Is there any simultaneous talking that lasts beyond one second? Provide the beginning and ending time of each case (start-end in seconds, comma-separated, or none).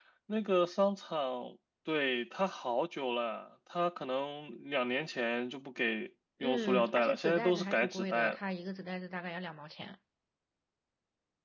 6.4-8.4